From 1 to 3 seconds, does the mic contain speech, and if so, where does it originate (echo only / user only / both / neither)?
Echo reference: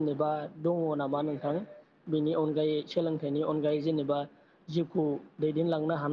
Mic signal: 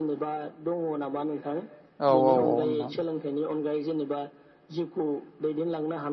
both